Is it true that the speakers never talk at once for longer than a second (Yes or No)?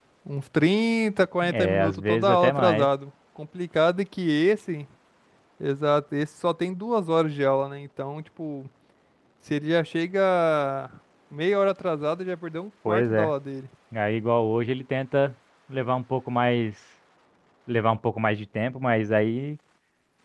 No